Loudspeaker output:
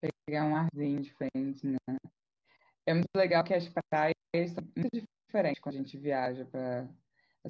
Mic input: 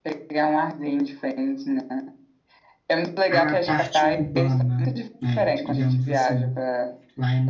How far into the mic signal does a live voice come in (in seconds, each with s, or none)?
3.3 s